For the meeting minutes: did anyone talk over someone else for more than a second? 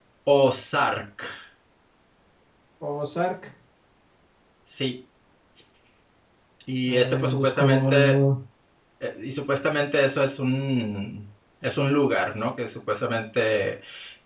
Yes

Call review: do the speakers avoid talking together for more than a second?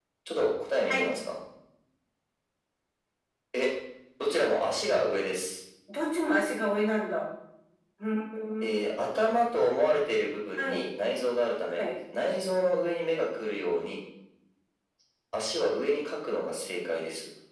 Yes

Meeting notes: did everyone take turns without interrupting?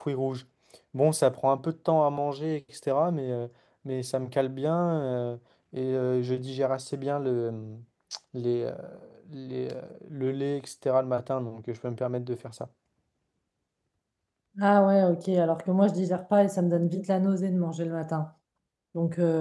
Yes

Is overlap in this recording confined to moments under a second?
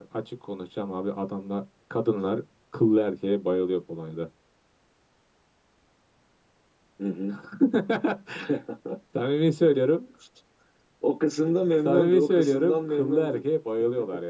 No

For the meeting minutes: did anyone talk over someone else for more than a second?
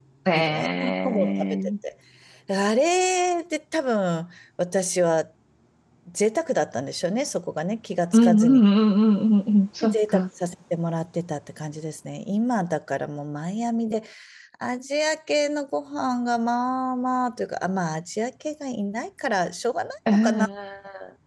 Yes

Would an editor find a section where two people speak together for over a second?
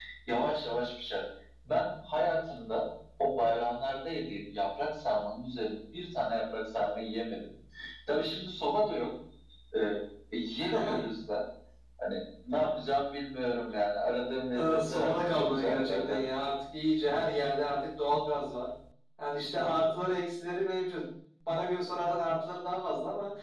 Yes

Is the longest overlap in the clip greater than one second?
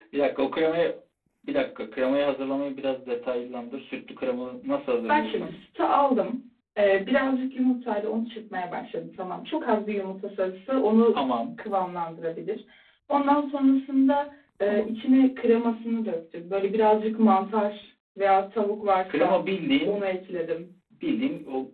No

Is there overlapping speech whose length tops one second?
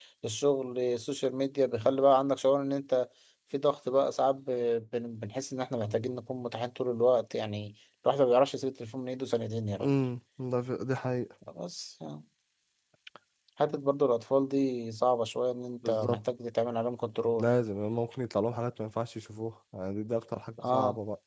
No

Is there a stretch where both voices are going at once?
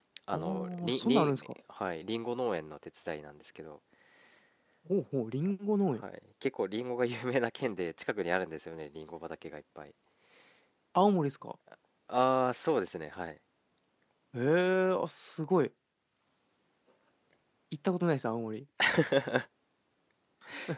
Yes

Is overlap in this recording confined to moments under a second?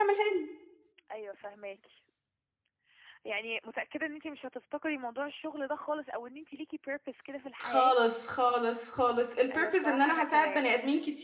No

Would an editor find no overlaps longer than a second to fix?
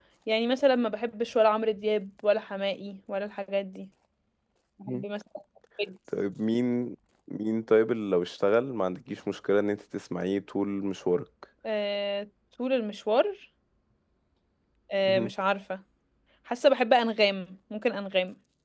Yes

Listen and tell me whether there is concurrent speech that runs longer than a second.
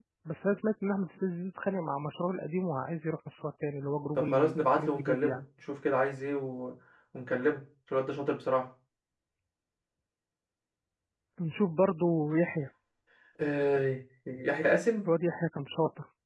Yes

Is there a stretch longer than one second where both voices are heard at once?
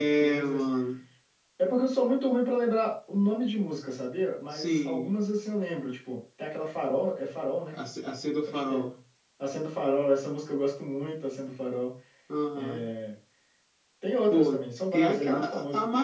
Yes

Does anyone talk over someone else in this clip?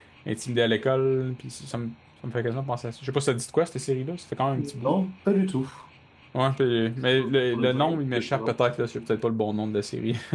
Yes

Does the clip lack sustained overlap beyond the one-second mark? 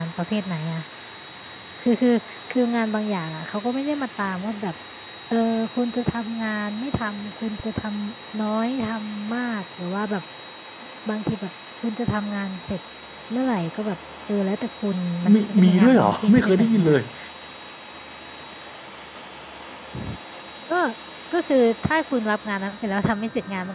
No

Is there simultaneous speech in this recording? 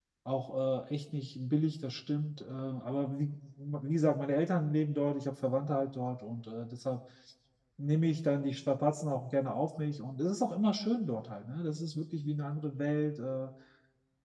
No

